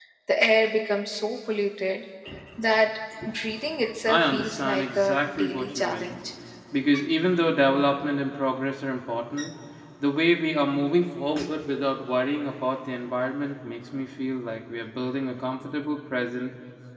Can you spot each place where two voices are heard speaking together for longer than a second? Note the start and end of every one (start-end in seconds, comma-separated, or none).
4.1-6.2